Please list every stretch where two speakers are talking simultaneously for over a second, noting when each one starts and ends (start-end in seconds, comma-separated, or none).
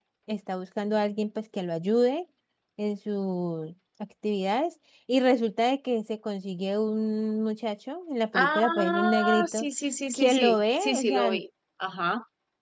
8.3-9.7, 10.1-11.4